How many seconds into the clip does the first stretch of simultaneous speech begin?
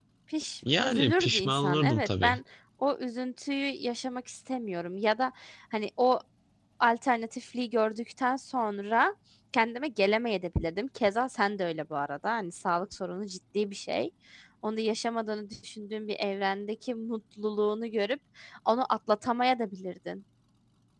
0.8 s

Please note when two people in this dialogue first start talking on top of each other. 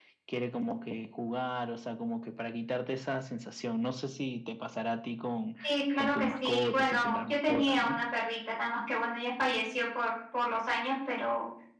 6.0 s

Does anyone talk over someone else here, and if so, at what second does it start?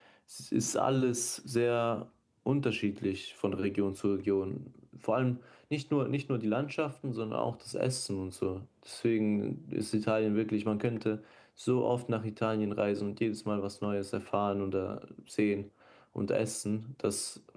none

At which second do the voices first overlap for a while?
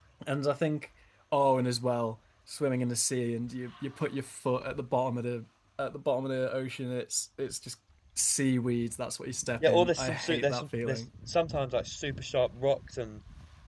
9.6 s

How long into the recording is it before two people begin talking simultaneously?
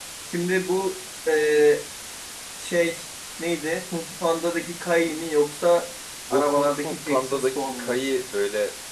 6.3 s

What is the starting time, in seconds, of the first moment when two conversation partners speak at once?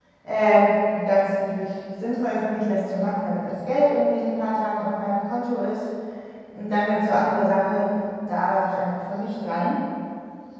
none

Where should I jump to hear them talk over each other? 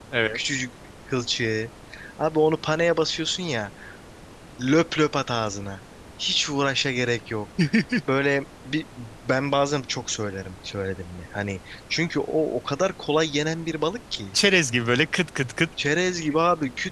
none

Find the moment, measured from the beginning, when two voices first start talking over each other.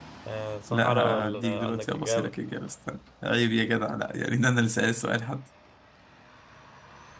0.7 s

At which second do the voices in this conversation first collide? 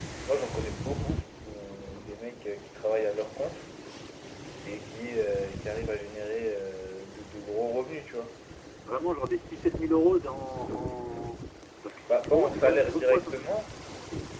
12.1 s

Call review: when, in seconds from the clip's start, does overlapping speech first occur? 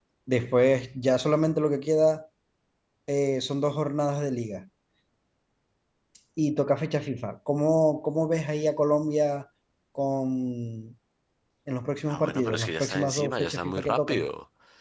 12.1 s

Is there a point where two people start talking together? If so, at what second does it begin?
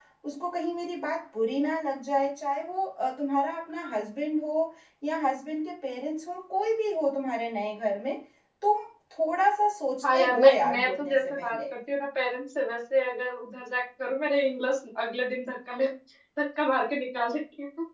10.0 s

